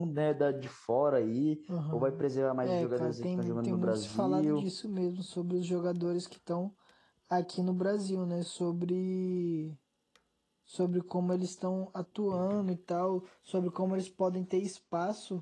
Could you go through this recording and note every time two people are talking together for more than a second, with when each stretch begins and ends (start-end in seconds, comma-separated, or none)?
2.6-4.7